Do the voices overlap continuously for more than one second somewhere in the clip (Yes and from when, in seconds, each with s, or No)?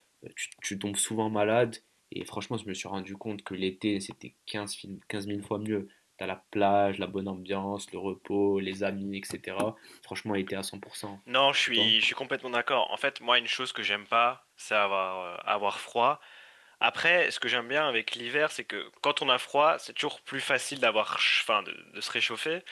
No